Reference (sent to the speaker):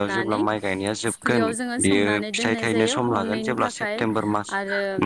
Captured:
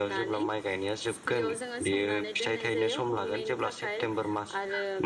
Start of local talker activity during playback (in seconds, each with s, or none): none